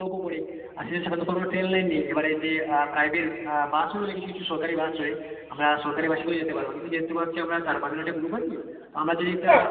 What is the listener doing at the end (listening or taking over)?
listening